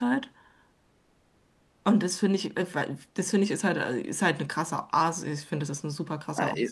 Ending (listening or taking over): taking over